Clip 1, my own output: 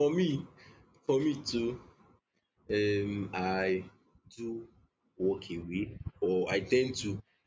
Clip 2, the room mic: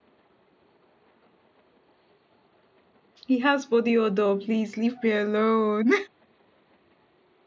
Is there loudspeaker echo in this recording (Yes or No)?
No